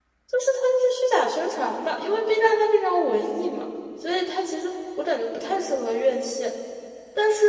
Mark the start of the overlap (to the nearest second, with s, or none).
none